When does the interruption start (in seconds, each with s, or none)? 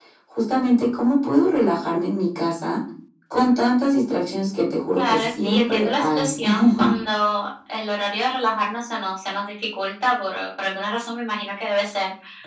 5.0 s